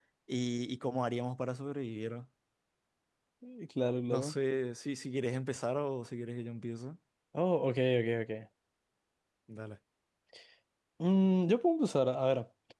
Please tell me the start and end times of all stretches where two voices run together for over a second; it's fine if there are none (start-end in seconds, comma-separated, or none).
none